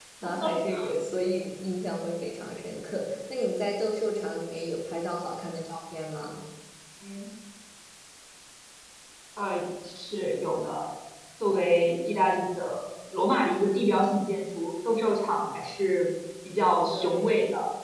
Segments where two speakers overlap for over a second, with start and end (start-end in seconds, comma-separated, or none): none